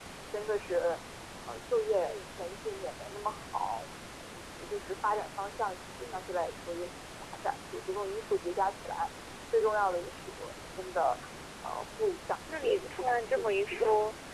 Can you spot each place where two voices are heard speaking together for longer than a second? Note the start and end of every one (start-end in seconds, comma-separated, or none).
12.5-13.8